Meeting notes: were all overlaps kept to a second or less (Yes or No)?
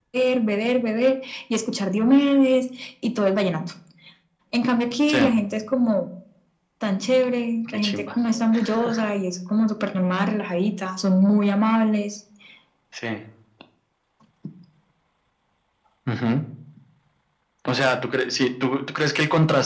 Yes